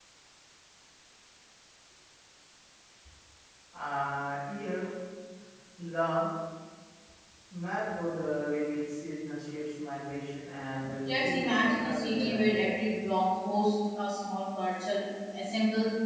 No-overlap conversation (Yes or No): No